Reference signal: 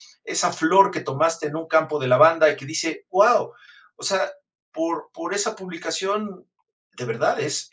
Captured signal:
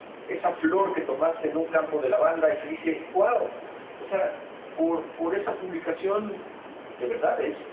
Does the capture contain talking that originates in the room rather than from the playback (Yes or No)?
No